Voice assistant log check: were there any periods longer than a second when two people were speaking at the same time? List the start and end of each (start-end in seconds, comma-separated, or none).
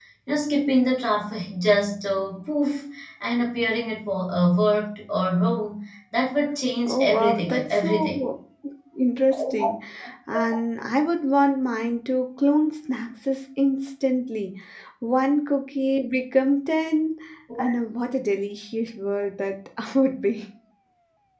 6.8-8.2